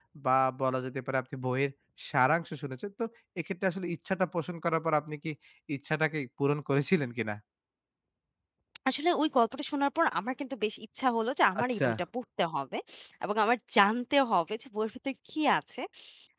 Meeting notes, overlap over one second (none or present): none